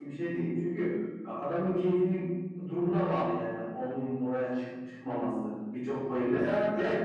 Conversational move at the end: listening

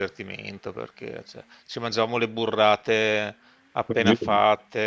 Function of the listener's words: listening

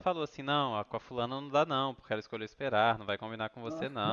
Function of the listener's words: listening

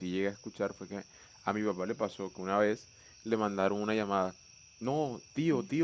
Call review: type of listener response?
listening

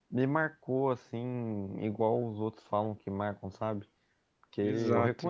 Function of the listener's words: listening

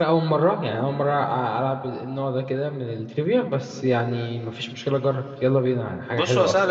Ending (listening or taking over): taking over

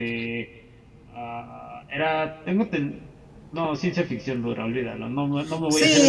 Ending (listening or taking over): taking over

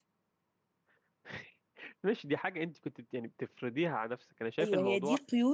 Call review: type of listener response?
taking over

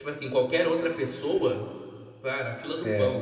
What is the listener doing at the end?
listening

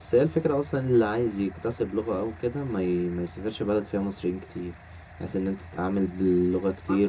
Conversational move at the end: taking over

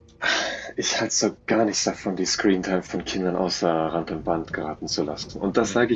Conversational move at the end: listening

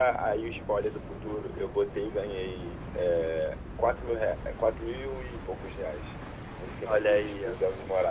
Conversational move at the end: taking over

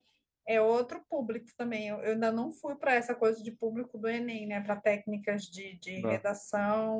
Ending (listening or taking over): listening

